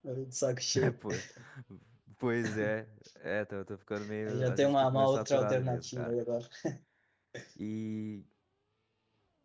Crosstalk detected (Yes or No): Yes